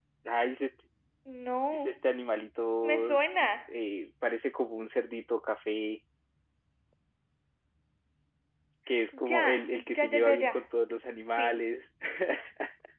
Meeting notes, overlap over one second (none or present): present